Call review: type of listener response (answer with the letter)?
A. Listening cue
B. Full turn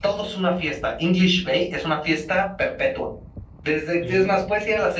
A